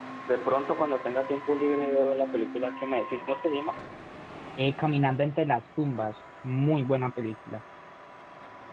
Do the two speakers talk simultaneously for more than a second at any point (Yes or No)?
No